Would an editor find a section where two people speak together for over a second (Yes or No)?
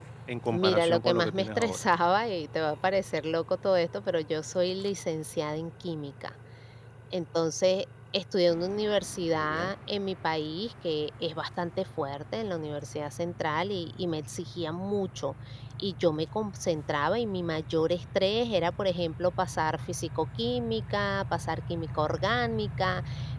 Yes